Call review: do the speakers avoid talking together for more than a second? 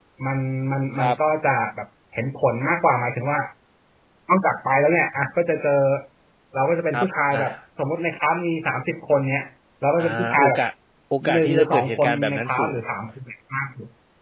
No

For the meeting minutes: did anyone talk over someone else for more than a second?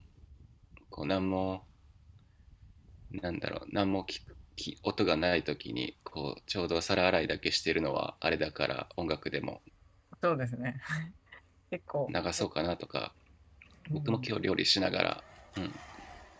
No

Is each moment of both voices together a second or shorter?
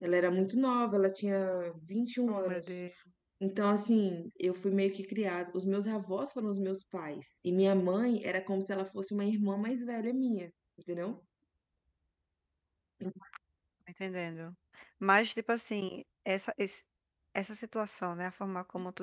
Yes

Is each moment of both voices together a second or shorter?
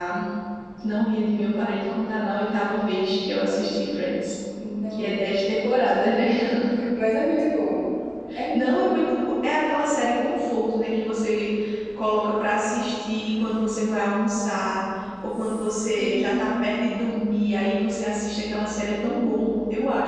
No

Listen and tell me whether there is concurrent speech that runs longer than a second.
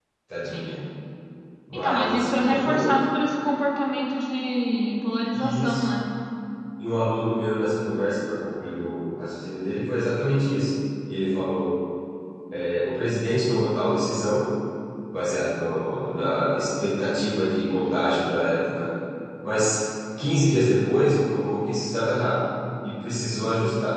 Yes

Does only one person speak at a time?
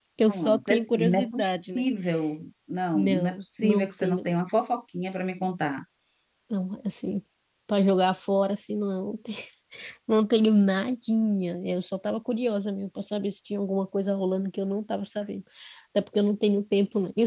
No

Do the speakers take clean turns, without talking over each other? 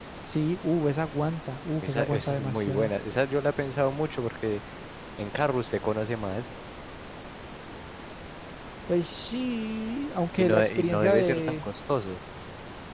No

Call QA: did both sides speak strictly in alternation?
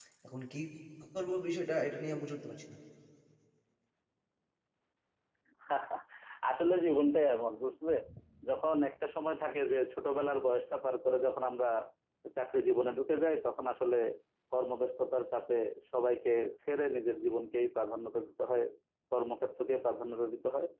Yes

